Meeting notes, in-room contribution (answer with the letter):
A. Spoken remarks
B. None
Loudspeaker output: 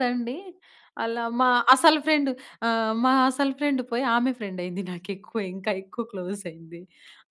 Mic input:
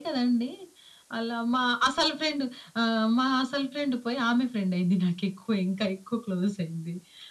B